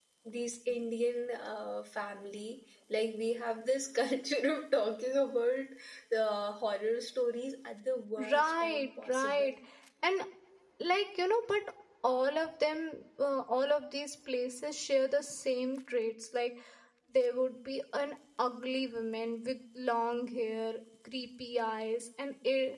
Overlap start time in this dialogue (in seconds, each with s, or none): 8.2 s